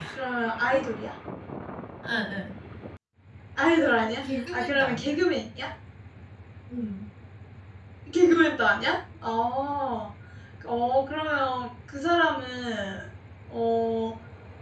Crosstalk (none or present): present